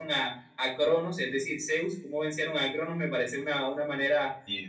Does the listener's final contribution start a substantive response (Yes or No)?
No